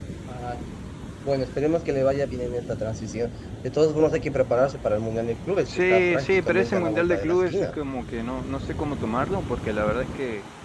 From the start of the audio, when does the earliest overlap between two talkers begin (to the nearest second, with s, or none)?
6 s